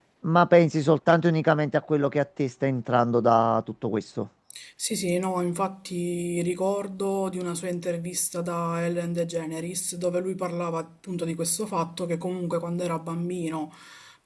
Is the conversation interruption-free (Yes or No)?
Yes